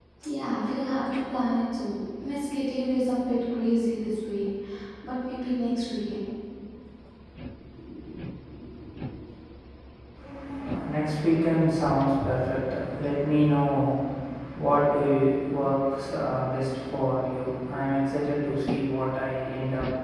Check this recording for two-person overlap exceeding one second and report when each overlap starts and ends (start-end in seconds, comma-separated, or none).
none